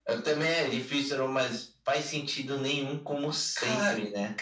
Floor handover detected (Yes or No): Yes